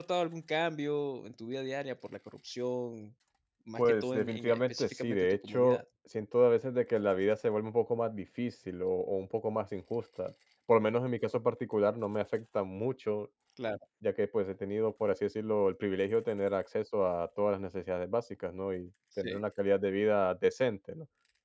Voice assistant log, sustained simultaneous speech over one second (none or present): present